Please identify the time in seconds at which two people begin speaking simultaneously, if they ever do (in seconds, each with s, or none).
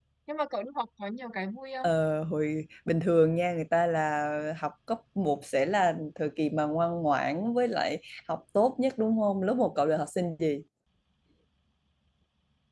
none